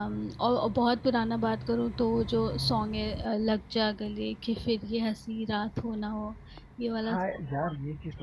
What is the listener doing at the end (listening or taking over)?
taking over